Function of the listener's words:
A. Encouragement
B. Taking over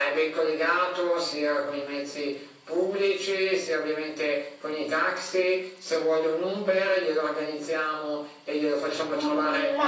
B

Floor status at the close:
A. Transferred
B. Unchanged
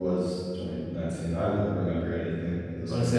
A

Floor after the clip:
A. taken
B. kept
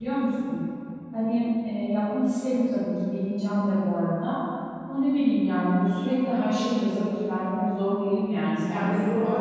A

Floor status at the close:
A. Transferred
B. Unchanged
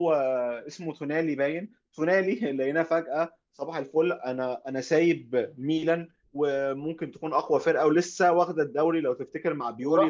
B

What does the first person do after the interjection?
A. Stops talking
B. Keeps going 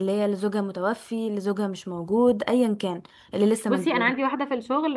A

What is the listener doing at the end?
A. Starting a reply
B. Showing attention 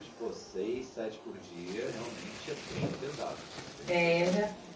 A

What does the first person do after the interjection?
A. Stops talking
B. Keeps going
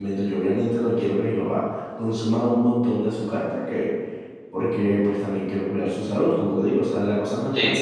B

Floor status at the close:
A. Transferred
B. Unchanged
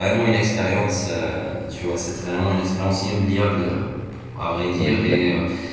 B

